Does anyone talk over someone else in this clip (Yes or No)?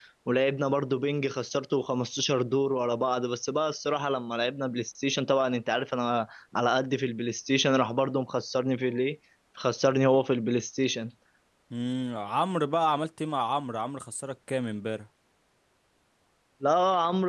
No